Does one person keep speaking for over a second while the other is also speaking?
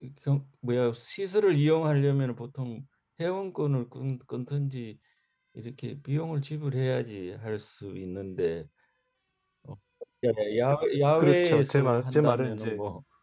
Yes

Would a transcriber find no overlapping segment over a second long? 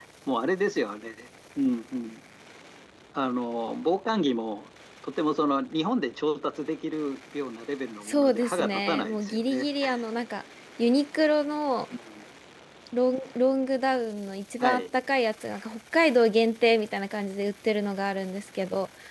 No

